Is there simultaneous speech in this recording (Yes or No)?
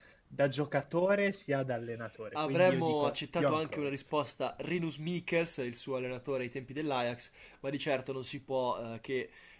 Yes